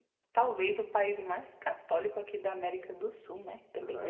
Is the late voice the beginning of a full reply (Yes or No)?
Yes